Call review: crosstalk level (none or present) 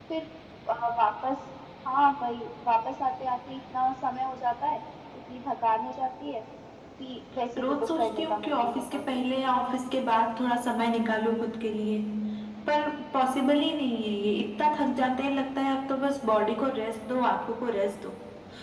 present